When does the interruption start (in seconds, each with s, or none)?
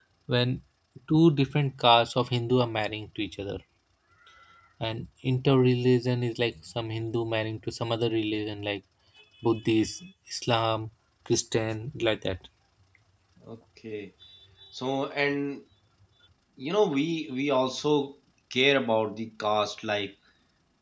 none